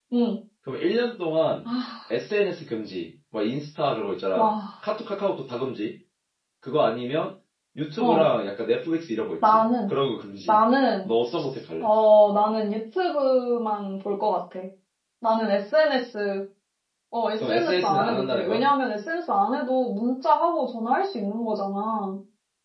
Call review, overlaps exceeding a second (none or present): present